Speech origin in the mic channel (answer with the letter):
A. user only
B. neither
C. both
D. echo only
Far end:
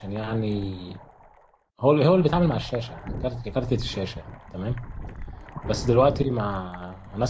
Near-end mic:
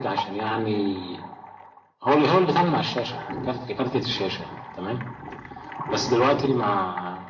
D